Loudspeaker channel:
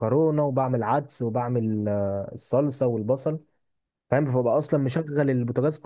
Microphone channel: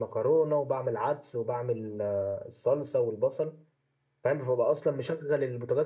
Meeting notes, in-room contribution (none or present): none